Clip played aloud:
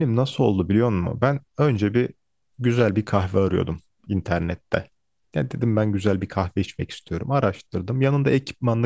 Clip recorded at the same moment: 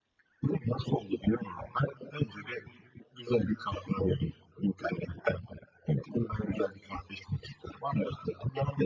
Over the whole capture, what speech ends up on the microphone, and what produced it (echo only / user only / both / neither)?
echo only